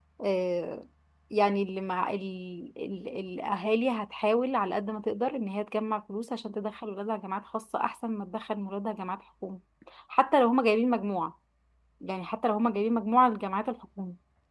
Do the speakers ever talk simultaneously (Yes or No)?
No